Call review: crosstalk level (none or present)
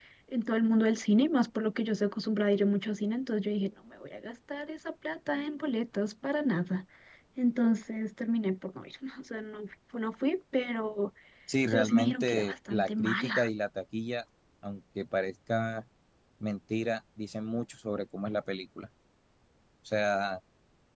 present